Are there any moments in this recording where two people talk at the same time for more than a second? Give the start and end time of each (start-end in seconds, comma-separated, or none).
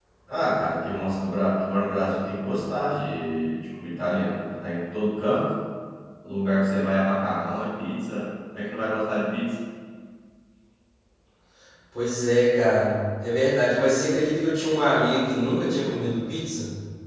none